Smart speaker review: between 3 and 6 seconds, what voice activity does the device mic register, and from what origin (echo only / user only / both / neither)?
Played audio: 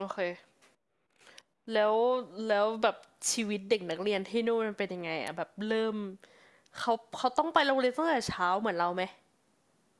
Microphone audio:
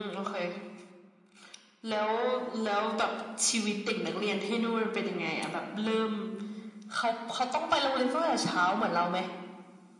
echo only